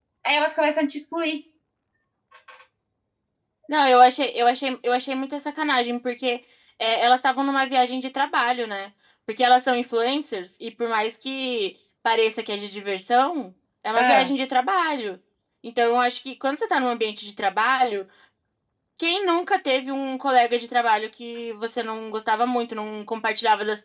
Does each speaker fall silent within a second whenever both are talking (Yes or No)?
Yes